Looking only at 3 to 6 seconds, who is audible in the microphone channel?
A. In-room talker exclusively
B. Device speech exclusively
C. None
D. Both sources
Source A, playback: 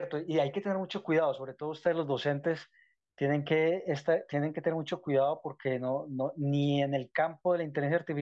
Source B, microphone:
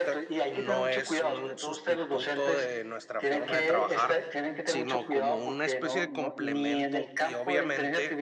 D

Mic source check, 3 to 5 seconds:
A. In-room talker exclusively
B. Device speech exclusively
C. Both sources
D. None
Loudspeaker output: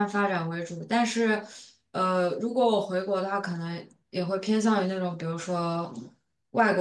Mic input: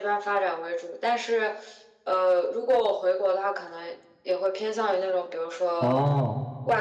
B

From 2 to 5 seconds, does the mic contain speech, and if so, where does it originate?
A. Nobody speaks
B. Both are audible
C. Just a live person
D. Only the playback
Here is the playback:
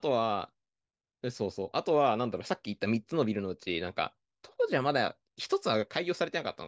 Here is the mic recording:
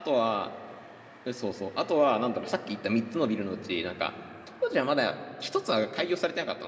D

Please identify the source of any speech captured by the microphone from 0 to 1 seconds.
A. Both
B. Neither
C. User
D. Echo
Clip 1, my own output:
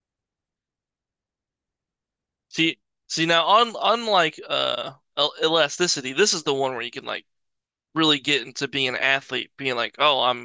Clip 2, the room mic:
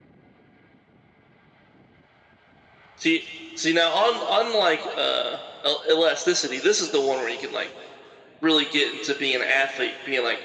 B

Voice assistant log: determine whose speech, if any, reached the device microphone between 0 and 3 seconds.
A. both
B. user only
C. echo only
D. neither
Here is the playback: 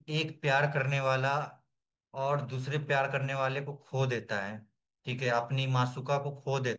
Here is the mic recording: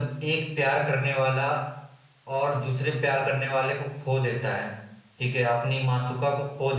C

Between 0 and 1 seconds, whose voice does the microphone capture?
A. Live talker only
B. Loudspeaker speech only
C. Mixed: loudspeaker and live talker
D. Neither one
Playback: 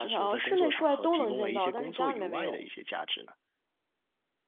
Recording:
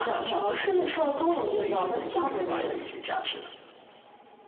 B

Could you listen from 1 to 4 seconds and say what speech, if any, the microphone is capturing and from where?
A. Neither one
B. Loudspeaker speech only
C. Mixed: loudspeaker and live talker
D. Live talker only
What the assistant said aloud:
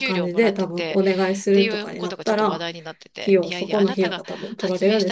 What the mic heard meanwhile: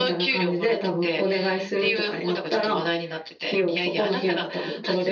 B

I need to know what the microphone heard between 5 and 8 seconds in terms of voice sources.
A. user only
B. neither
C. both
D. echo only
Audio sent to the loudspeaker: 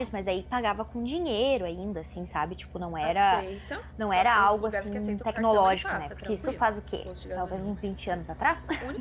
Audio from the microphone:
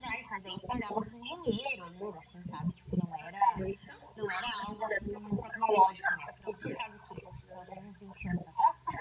D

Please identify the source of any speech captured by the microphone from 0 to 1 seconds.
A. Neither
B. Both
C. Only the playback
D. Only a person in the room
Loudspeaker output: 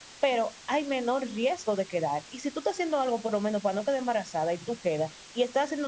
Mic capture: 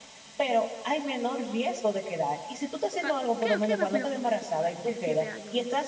C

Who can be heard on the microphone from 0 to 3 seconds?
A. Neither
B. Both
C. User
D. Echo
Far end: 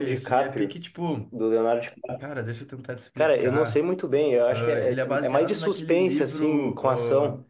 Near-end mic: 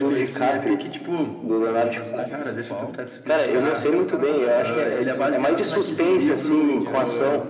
B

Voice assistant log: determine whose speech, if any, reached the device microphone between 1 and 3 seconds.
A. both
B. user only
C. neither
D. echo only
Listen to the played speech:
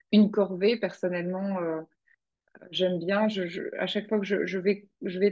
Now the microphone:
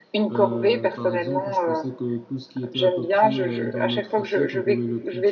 A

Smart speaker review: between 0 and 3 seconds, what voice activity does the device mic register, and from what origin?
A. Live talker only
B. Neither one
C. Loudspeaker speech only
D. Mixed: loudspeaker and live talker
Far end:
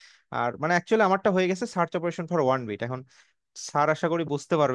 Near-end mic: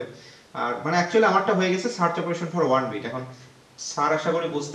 C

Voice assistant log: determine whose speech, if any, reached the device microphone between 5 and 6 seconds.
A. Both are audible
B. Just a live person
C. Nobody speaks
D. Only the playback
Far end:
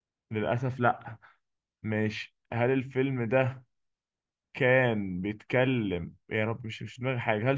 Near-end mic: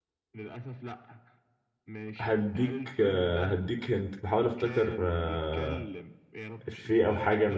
A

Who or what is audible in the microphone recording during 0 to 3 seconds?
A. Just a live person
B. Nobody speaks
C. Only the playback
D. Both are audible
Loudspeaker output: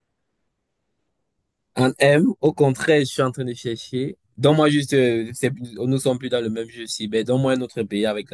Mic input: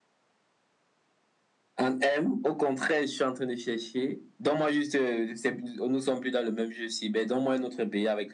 C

